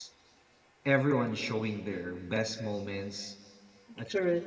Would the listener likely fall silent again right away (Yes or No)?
Yes